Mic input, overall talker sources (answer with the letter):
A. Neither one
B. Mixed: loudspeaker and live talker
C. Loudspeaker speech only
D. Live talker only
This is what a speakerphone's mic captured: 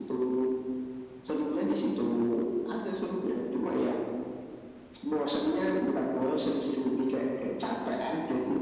C